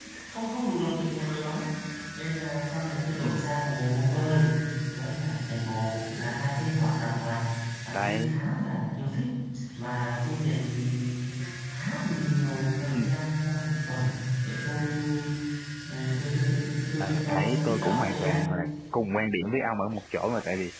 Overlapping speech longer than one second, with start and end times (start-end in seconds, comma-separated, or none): 17.0-18.4